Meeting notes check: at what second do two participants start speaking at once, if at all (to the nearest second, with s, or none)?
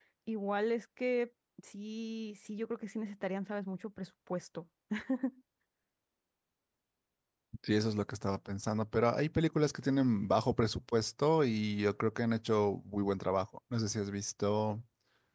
none